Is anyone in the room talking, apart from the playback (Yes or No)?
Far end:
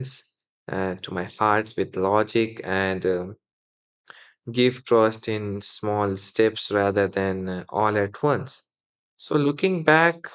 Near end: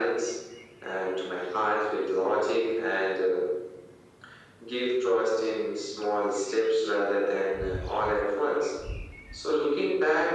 No